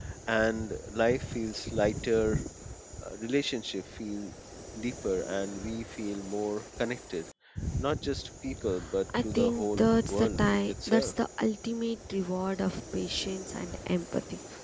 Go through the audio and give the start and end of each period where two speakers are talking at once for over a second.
9.2-11.1

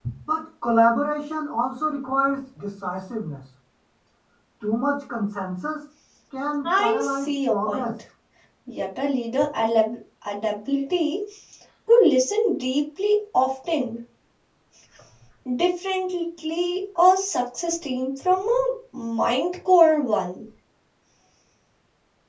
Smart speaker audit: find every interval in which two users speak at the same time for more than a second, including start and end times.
6.6-7.9

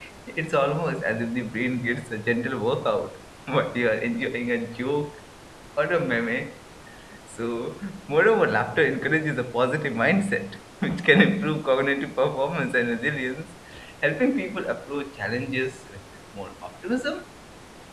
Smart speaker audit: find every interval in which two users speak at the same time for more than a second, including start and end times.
none

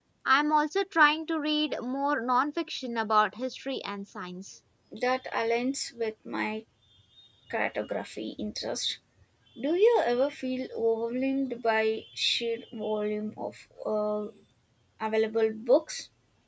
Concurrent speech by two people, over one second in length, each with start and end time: none

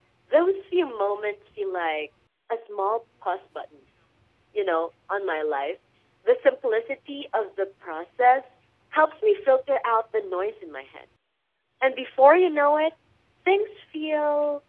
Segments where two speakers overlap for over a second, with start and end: none

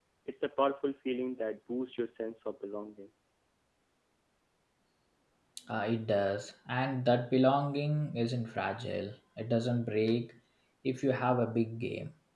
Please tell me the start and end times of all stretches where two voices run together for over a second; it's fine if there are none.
none

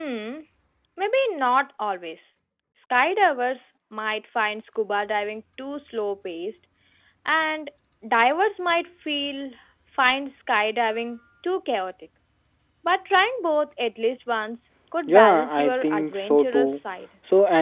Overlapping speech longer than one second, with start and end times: 15.0-16.8

